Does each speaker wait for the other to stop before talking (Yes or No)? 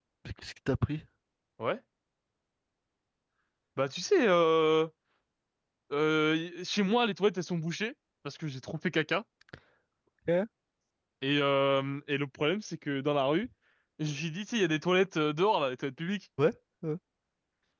Yes